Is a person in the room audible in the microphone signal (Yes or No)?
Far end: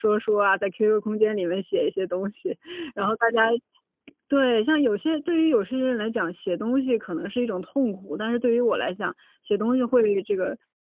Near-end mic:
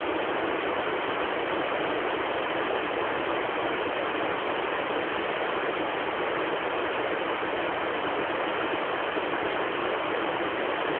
No